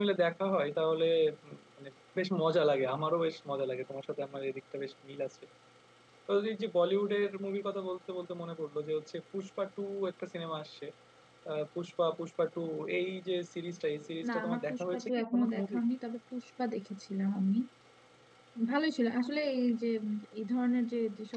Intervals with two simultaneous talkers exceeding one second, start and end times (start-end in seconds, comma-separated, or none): 14.3-15.8